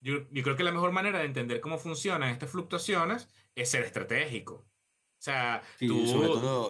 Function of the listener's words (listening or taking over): taking over